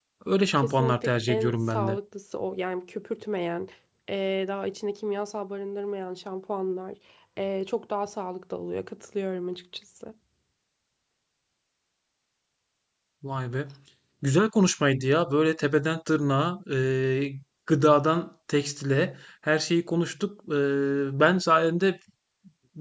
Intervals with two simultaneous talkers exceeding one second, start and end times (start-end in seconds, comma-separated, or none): 0.6-2.0